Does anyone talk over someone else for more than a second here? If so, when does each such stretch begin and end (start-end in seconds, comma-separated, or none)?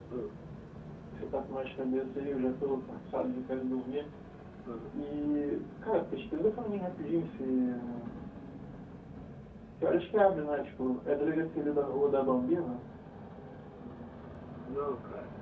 none